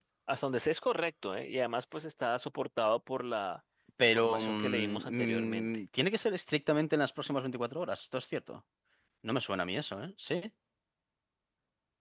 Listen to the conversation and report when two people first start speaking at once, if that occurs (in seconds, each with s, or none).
4.0 s